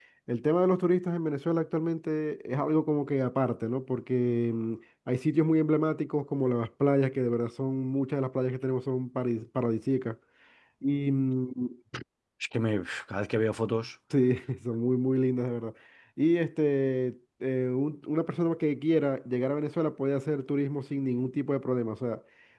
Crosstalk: none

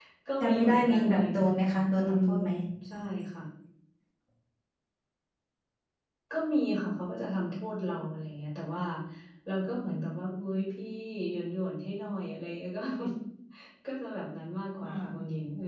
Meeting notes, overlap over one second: present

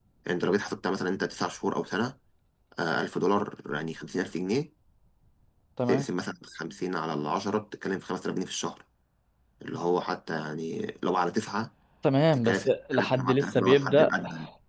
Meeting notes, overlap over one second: present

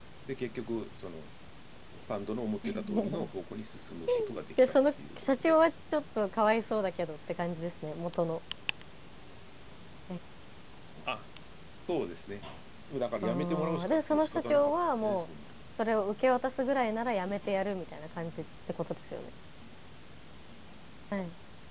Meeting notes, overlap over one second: present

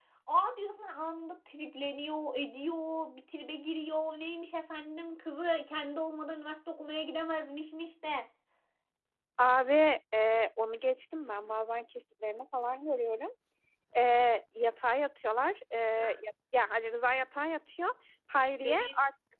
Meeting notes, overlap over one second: none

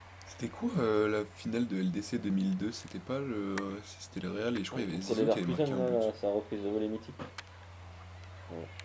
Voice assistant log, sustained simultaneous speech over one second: present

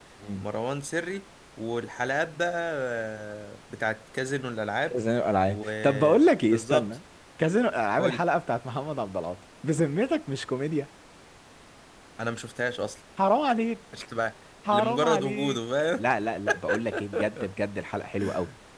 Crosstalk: present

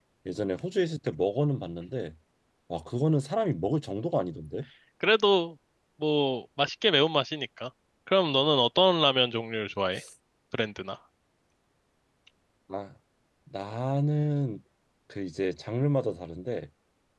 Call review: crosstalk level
none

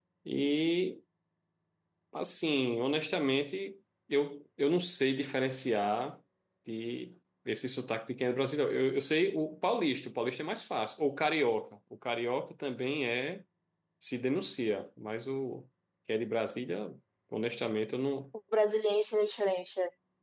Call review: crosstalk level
none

